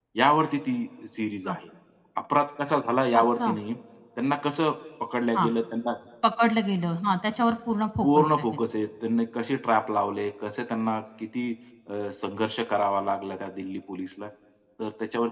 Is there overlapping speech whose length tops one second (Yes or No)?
No